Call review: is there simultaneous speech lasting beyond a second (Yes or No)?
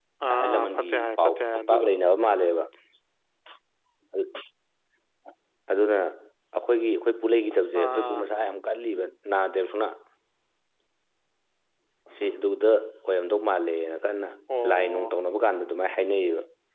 Yes